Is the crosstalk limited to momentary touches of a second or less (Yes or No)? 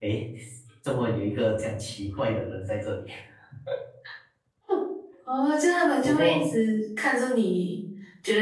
Yes